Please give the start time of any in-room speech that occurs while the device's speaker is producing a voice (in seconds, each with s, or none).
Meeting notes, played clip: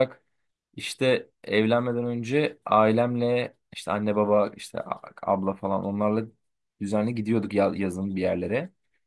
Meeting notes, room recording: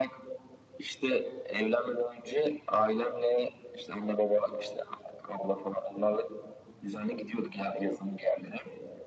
none